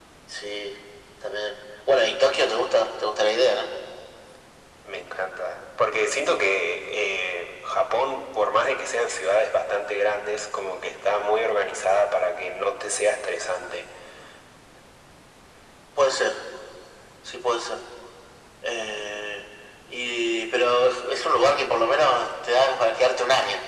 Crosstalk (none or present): none